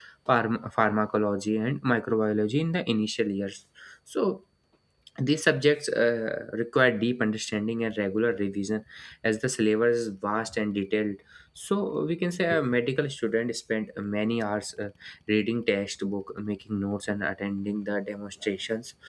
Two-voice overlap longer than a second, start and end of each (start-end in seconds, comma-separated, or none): none